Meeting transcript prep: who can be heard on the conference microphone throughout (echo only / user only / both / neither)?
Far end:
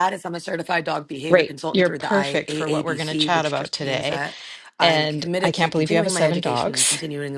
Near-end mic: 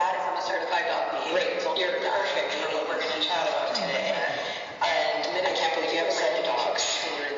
both